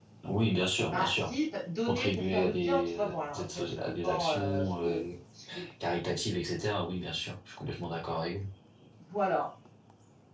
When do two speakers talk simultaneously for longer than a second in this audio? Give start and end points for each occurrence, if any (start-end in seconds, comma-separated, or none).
1.9-5.0